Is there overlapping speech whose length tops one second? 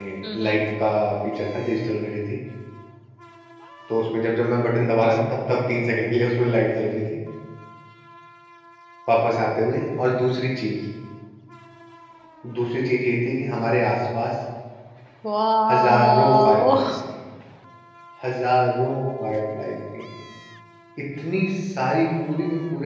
Yes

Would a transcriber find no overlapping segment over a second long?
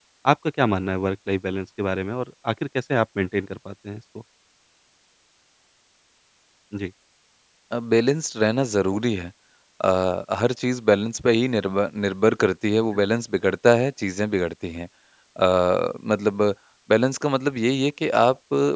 Yes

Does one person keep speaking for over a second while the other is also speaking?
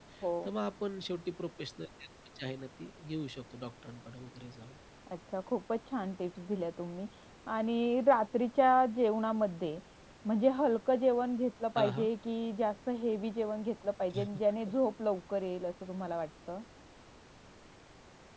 No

